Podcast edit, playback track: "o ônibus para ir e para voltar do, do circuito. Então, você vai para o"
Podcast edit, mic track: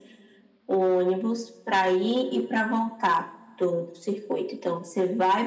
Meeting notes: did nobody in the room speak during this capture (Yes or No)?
Yes